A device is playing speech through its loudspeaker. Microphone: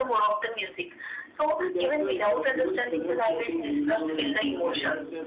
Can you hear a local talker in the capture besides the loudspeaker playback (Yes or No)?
Yes